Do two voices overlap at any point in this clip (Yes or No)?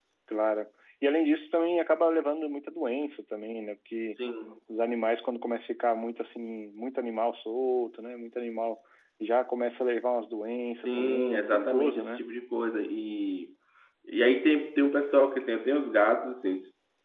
Yes